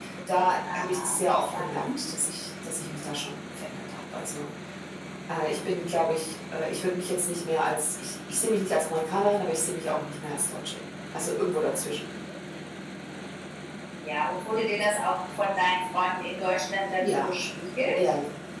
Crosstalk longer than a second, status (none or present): present